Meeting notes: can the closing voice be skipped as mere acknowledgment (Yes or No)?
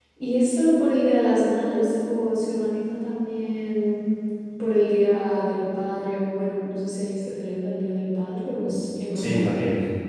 No